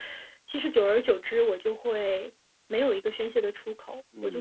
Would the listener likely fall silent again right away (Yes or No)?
No